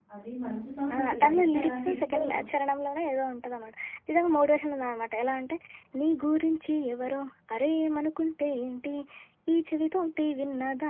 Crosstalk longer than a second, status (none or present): present